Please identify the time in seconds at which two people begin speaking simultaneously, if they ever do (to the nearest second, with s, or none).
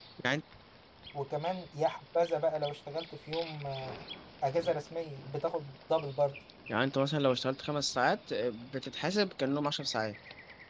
none